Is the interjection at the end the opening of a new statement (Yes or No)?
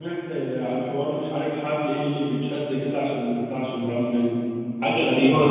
Yes